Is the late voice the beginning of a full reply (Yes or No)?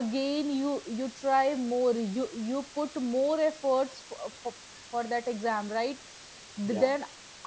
No